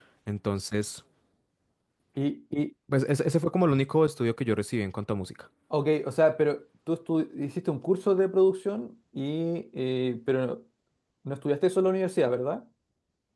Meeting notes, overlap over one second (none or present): none